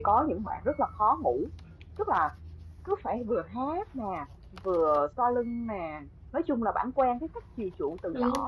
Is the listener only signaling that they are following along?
Yes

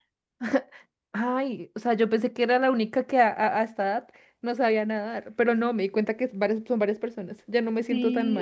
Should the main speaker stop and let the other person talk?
Yes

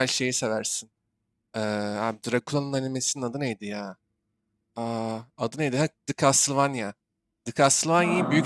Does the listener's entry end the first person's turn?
No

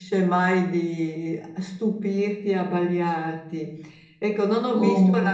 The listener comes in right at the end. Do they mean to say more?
No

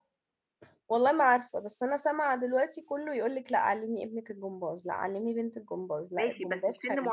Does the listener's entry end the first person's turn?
Yes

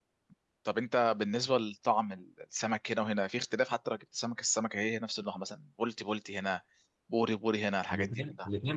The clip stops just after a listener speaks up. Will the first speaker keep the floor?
No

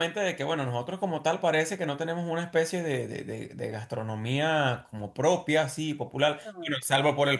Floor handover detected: No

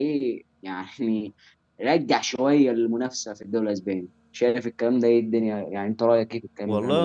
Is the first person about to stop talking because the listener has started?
Yes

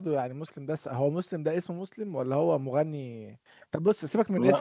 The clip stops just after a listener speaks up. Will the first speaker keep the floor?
Yes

